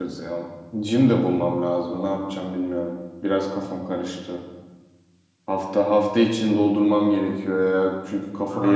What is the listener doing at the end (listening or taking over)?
taking over